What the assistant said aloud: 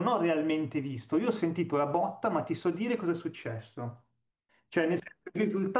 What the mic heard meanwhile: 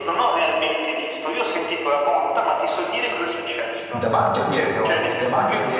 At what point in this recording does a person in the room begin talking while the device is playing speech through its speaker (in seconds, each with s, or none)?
3.9 s